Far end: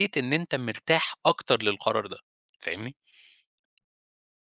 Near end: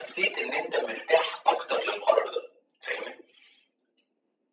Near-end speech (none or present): none